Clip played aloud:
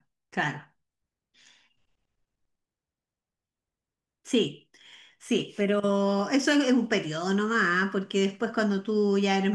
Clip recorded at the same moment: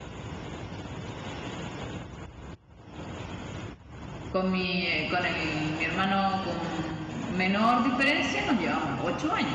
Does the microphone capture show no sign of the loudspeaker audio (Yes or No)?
Yes